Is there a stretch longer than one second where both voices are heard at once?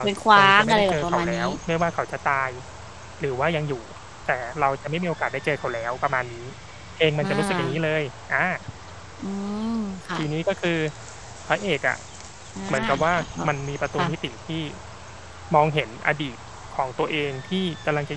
Yes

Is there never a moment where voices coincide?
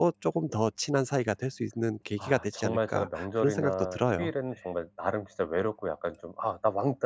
No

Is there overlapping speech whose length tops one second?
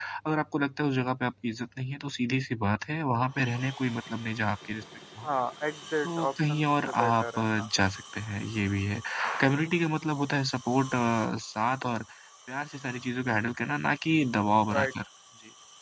Yes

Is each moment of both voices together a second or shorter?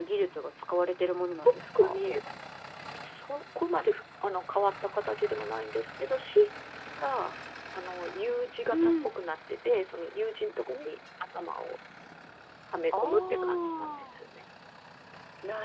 No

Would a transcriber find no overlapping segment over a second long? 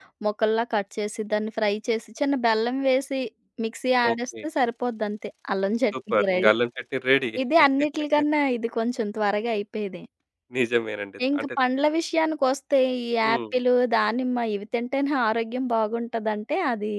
Yes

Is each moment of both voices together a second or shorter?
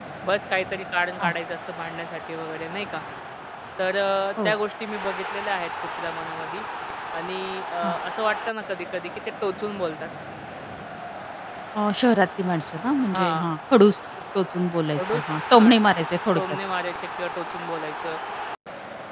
Yes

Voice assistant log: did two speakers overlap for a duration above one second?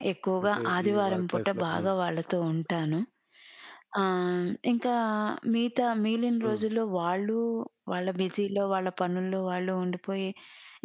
Yes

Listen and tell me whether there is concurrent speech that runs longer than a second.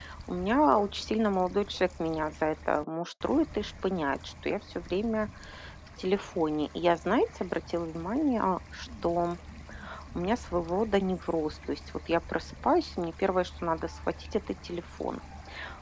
No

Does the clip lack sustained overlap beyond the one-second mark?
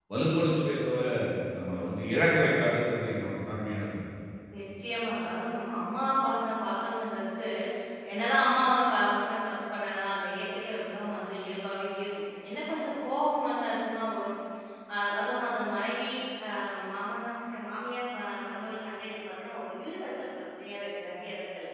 Yes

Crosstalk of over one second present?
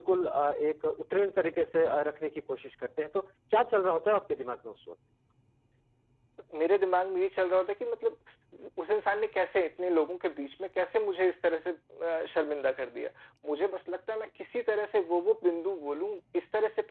No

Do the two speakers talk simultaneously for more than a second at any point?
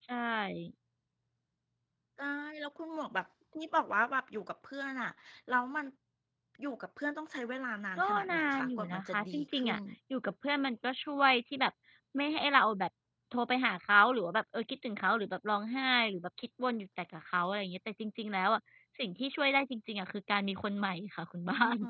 Yes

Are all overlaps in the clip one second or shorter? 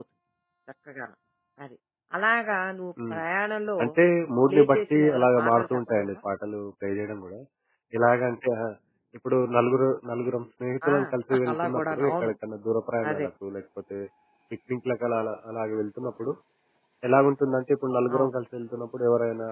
No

